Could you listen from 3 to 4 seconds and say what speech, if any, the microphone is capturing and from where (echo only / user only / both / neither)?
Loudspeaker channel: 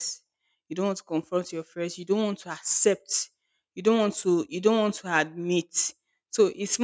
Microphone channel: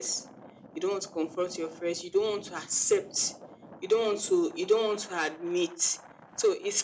echo only